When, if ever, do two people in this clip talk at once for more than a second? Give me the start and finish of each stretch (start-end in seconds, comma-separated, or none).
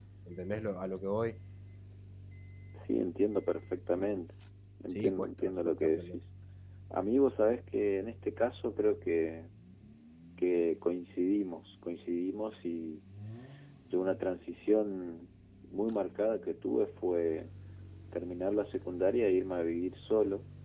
5.0-6.2